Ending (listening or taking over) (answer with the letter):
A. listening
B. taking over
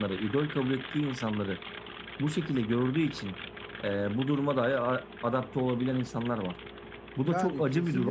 B